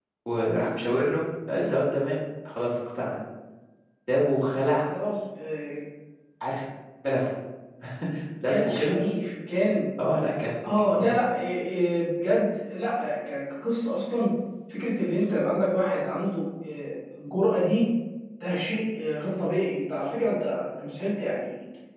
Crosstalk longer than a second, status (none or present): none